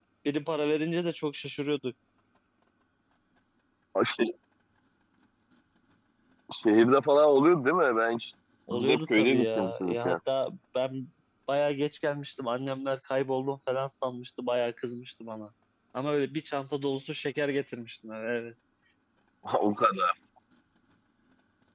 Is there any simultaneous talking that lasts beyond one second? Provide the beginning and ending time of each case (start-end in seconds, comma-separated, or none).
8.7-10.2